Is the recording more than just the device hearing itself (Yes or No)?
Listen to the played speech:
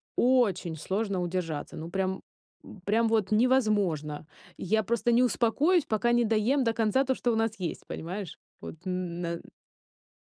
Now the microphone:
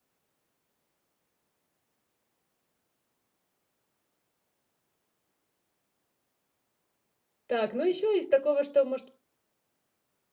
Yes